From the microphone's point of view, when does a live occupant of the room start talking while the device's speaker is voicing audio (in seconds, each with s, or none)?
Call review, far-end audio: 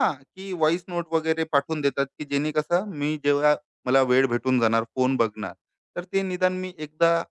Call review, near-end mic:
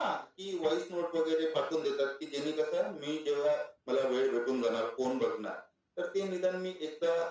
none